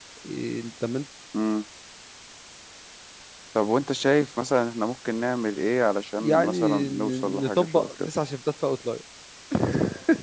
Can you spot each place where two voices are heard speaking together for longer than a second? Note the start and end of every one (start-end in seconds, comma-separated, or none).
6.2-8.1